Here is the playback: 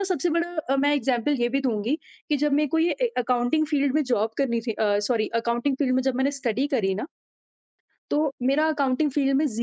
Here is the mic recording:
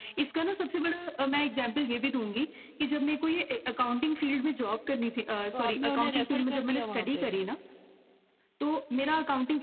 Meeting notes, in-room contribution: present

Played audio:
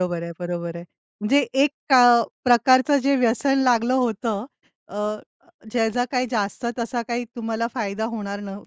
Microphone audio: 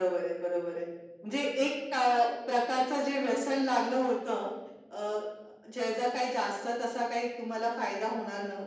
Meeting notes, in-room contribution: none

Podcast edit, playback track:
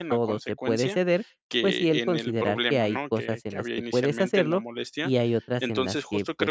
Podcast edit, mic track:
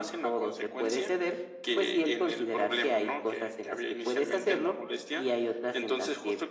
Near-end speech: none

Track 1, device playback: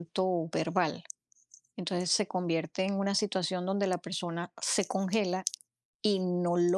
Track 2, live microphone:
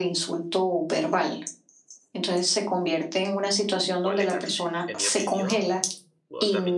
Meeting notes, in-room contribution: present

